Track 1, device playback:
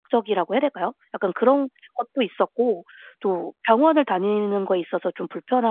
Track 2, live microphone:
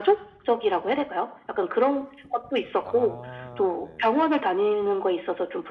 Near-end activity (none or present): present